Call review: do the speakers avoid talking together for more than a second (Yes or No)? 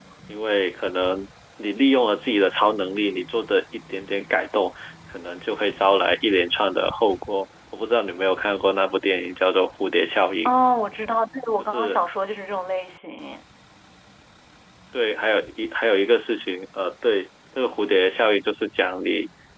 Yes